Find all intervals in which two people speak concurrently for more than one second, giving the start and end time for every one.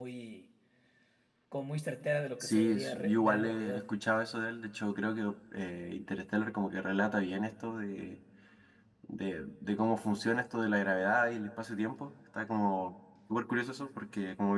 2.4-3.9

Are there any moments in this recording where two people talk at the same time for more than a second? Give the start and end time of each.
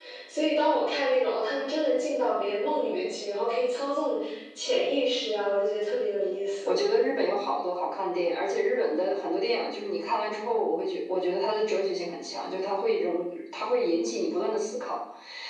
none

